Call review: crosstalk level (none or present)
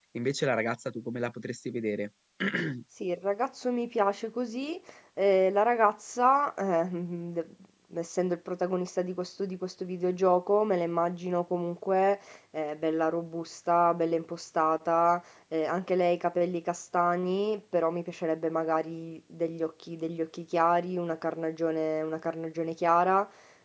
none